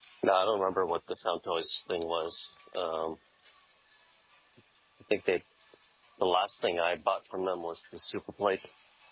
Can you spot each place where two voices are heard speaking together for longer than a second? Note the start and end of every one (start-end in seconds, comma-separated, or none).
none